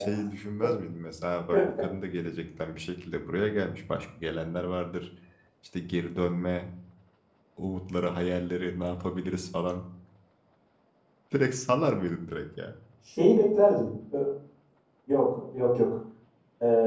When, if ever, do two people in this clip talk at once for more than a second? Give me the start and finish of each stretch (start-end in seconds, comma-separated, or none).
none